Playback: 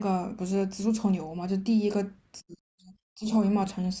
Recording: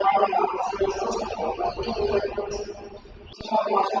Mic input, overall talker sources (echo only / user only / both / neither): echo only